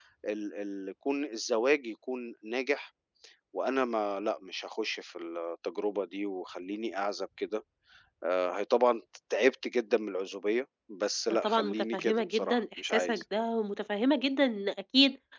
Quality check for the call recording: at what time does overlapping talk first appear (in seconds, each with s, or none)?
11.4 s